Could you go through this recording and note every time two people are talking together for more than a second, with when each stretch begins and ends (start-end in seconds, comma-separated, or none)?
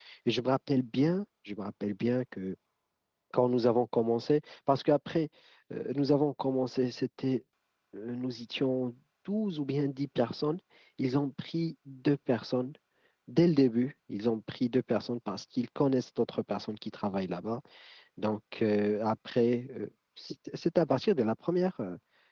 none